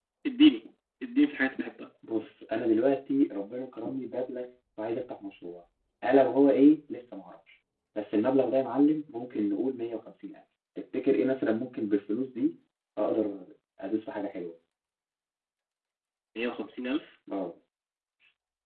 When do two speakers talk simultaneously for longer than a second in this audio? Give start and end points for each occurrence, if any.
none

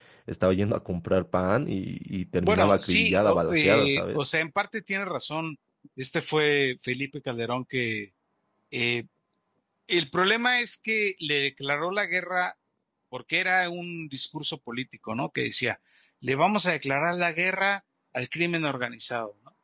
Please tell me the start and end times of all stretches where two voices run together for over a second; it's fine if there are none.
2.4-4.2

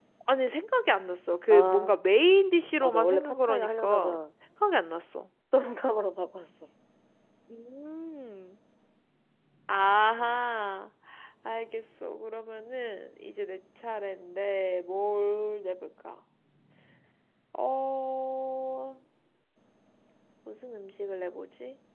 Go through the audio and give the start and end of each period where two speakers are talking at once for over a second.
2.8-4.2

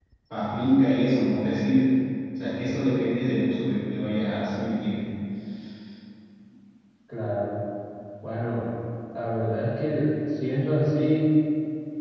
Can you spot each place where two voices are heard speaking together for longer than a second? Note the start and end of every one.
none

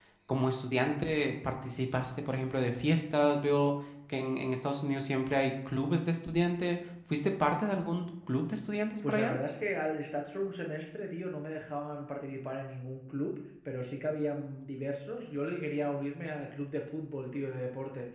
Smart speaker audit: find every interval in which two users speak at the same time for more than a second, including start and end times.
none

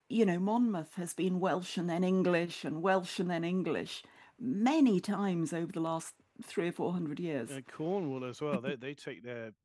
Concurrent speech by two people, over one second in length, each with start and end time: none

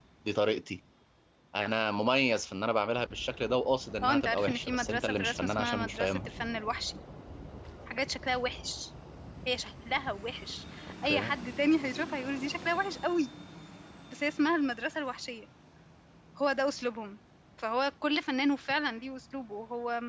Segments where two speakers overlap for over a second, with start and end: 4.0-6.3

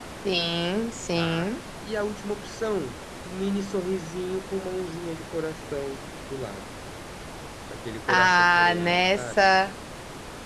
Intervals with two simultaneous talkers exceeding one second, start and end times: 8.1-9.3

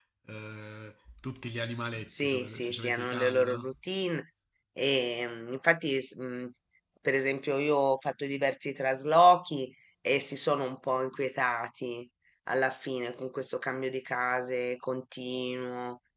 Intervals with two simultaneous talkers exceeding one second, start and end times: 2.2-3.7

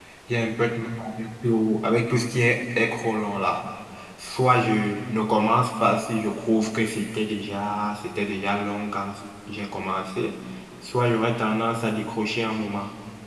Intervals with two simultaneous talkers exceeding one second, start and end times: none

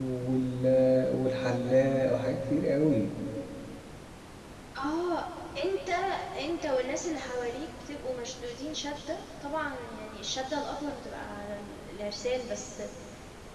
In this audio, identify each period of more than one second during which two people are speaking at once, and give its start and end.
none

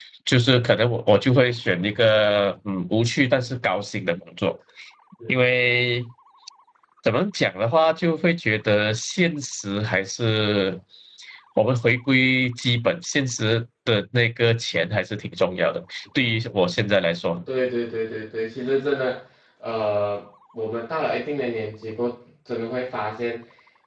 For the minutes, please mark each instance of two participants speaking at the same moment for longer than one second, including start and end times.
none

